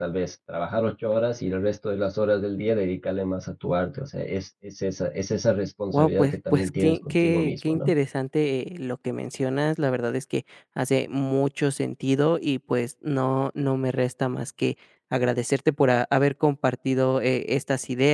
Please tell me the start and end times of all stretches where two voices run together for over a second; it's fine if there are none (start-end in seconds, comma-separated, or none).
5.9-7.9